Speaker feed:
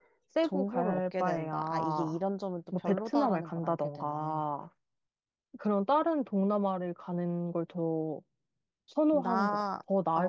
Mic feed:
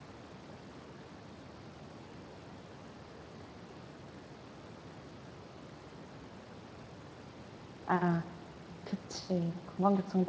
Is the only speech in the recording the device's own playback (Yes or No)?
No